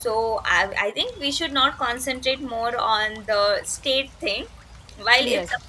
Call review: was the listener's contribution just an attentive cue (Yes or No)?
Yes